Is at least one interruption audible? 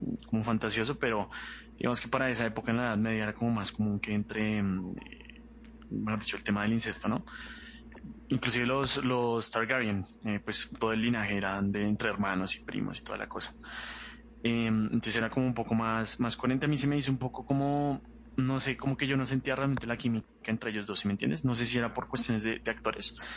No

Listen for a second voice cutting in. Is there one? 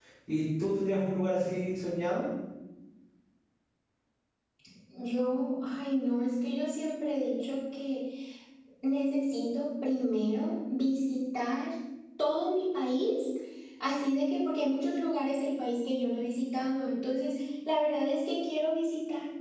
No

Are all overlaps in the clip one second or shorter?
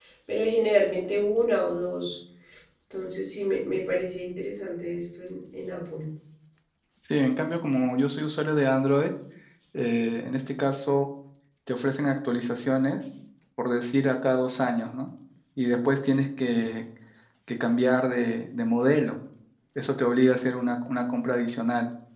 Yes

